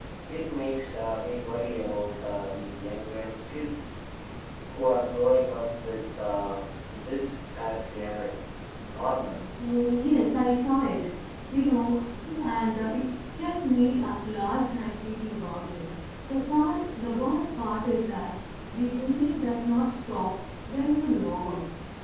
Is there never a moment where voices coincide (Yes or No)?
Yes